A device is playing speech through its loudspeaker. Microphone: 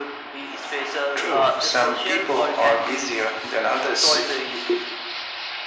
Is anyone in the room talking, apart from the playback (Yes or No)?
No